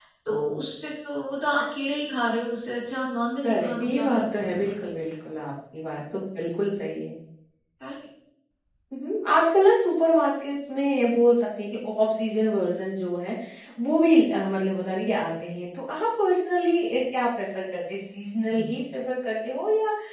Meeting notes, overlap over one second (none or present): present